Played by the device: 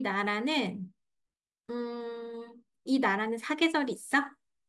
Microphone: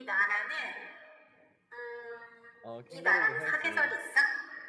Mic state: both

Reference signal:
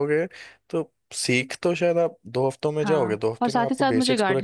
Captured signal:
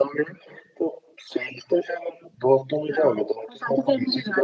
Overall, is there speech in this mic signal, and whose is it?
echo only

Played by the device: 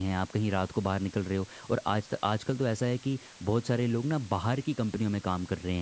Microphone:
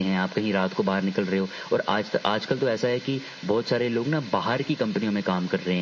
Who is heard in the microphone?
echo only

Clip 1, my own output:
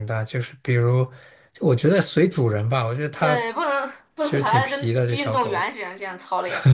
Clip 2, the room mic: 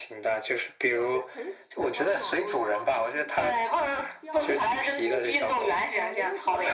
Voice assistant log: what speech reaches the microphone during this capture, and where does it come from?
both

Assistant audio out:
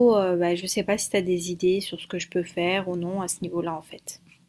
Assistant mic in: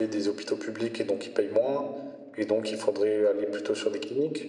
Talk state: user only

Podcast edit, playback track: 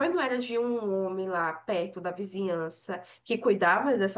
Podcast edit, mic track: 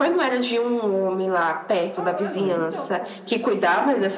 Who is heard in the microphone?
both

